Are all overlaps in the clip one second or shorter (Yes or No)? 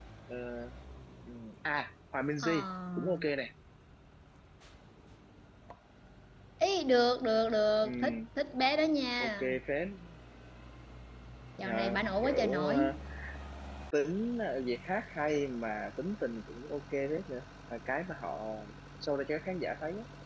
No